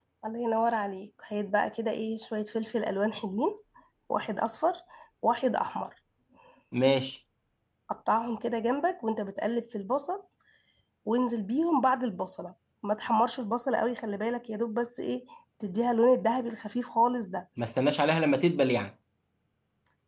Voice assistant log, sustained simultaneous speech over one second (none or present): none